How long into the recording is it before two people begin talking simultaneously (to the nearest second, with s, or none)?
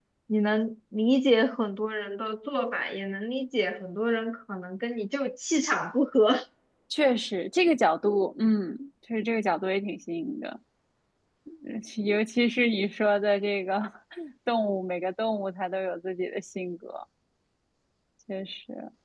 none